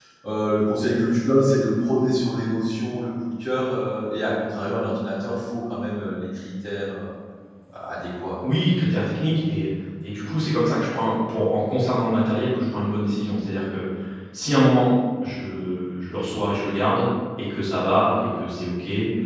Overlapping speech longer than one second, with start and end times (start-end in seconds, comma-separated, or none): none